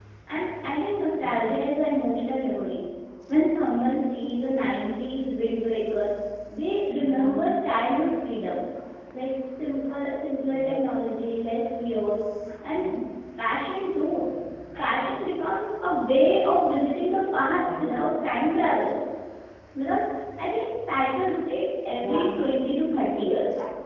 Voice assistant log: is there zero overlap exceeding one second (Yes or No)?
Yes